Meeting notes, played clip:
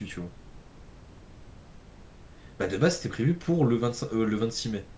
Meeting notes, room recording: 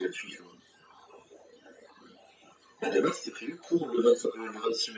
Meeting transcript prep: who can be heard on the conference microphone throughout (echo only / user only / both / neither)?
echo only